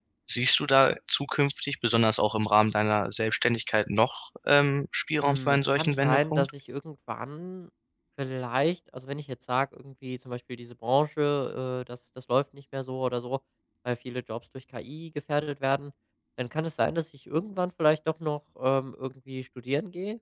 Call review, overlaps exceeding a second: present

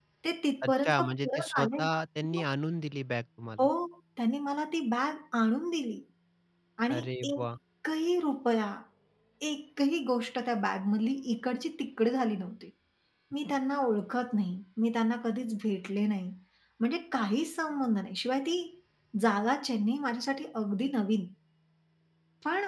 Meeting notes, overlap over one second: present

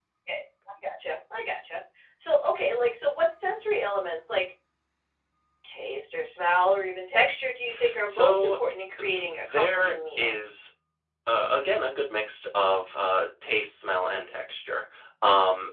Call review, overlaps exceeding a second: present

